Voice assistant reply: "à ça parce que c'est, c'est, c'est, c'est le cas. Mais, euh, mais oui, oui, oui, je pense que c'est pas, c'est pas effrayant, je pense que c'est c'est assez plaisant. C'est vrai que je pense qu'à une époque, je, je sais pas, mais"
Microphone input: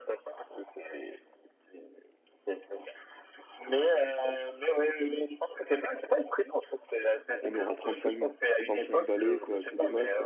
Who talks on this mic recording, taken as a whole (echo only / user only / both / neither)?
both